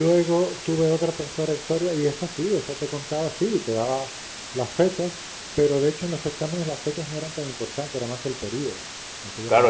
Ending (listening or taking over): taking over